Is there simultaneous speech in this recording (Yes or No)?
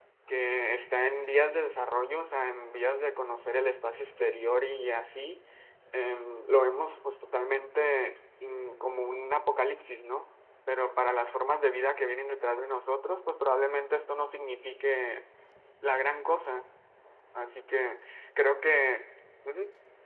No